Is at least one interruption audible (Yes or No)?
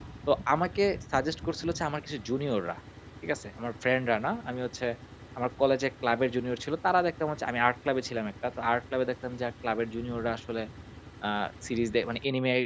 No